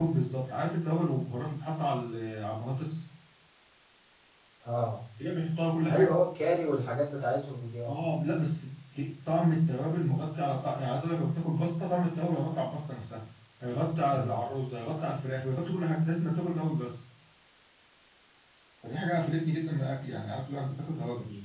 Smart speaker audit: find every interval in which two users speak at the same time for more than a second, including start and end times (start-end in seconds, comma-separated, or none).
none